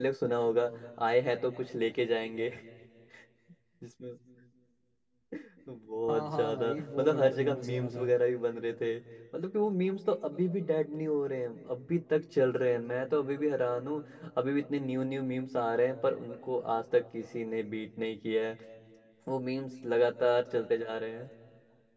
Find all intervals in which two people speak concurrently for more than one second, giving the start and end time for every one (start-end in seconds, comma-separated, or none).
6.1-8.1